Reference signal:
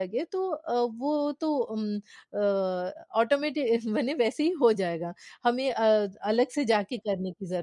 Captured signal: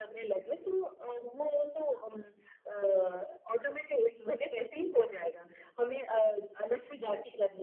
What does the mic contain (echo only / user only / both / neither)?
echo only